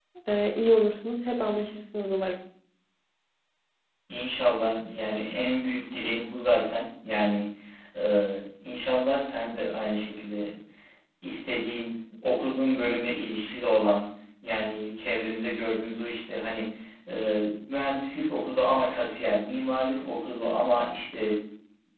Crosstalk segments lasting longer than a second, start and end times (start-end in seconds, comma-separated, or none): none